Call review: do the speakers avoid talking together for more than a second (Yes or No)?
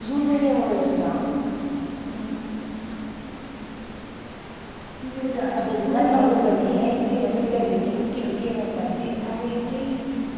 No